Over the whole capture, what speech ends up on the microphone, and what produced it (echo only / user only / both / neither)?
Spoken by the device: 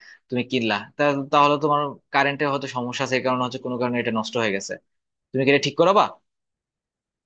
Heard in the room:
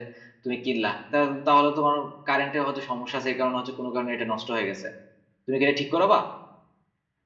echo only